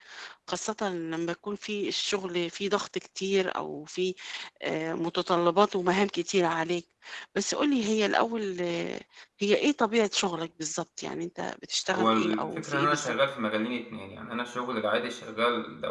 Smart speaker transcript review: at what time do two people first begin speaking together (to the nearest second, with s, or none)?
12 s